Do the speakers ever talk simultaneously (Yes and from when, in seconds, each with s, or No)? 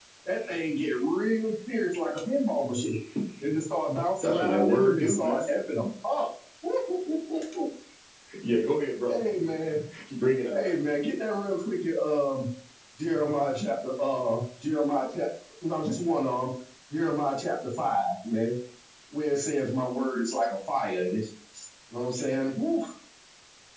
Yes, from 4.2 s